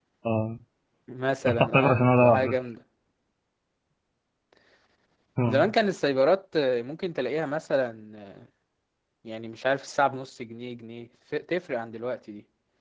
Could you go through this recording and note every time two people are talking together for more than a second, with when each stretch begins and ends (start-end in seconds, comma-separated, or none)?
1.4-2.7